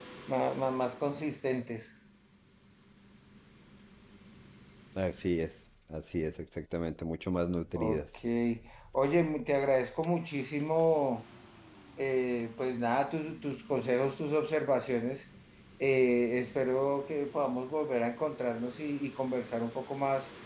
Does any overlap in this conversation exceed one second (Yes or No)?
No